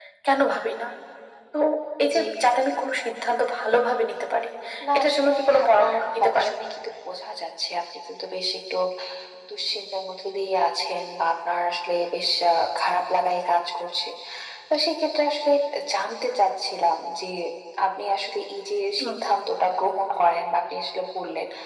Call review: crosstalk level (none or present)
present